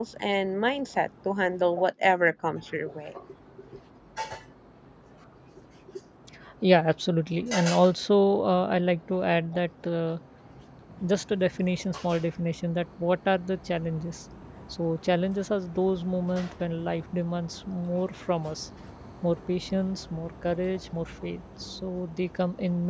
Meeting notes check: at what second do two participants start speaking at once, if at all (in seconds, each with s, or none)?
none